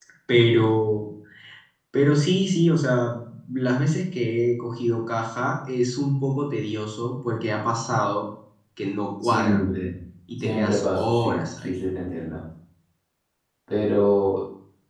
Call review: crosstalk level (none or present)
present